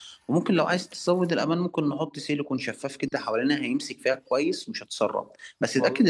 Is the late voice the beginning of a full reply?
No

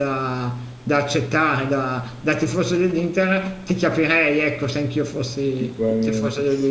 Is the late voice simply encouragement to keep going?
No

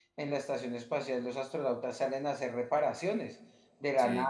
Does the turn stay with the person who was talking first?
Yes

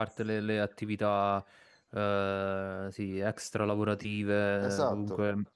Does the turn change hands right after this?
No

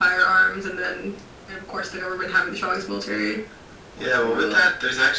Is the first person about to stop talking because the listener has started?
Yes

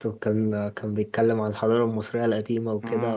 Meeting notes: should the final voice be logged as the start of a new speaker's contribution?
No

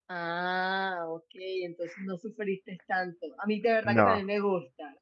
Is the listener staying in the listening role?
Yes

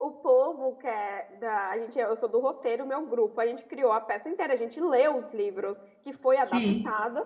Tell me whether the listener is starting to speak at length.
No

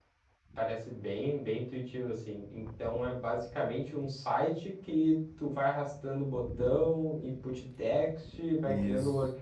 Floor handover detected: No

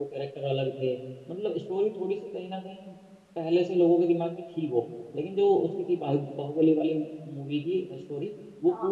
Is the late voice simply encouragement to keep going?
No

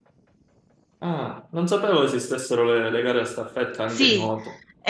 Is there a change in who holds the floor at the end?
Yes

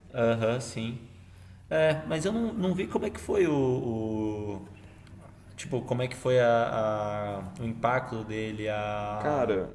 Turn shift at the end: No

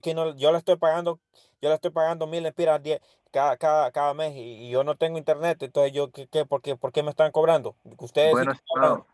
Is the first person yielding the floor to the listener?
No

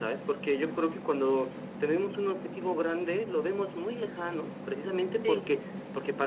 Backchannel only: Yes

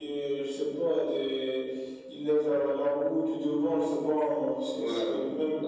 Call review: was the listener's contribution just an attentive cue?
No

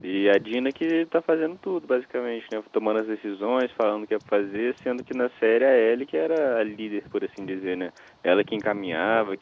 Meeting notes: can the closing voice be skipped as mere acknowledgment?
Yes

